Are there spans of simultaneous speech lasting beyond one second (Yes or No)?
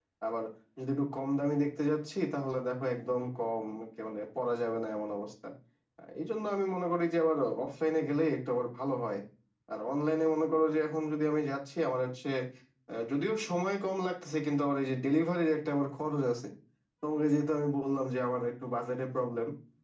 No